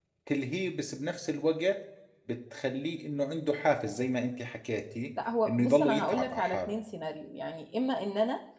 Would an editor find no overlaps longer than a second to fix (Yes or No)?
No